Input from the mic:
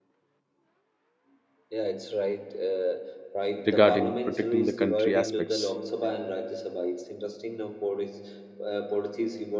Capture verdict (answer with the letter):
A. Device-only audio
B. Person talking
B